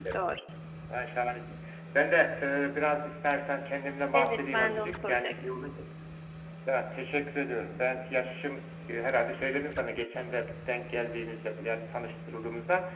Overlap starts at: 4.1 s

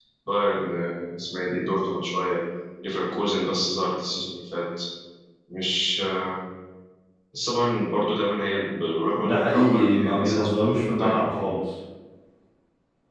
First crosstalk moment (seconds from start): 9.2 s

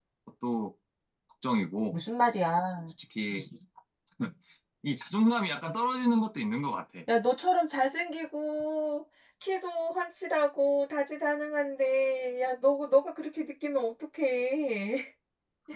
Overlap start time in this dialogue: none

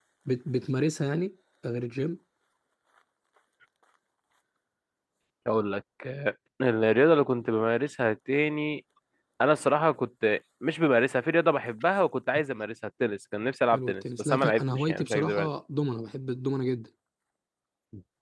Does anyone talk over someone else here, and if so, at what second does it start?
13.7 s

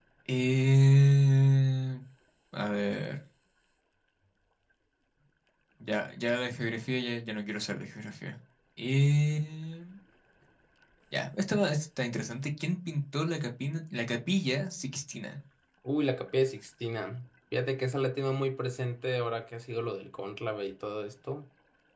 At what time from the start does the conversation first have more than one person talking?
none

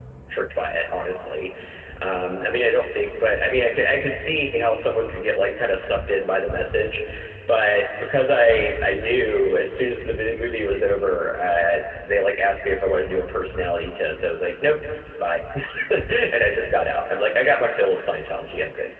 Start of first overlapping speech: none

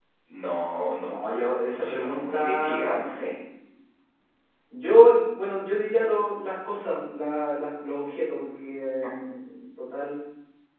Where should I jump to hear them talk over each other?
1.0 s

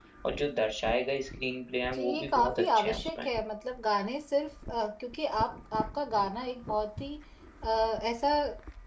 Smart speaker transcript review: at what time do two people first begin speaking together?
1.9 s

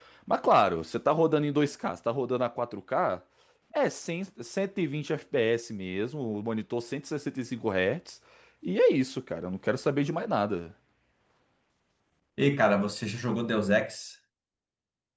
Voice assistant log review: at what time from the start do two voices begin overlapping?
none

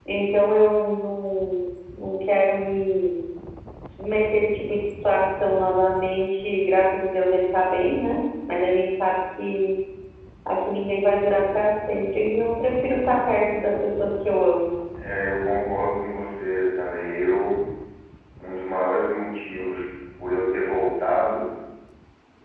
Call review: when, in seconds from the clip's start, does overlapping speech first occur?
none

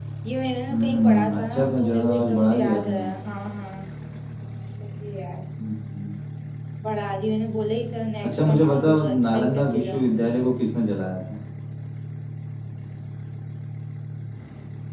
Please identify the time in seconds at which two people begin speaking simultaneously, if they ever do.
0.7 s

